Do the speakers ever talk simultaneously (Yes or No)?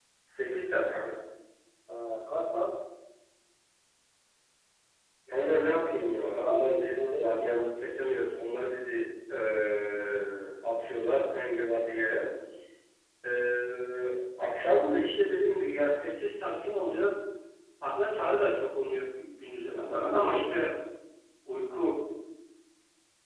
Yes